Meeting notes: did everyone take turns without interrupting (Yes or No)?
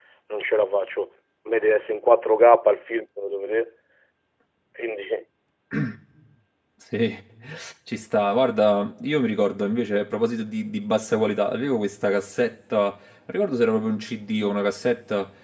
Yes